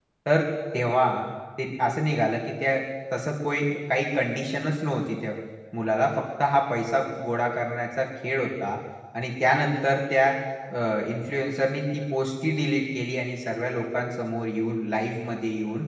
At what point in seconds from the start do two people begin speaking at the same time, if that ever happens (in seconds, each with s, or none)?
none